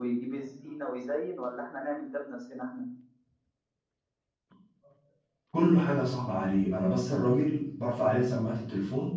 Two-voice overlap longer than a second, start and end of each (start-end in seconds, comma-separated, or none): none